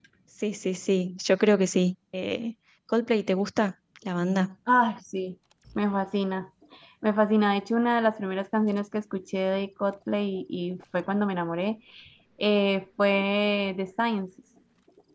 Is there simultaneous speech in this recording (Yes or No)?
No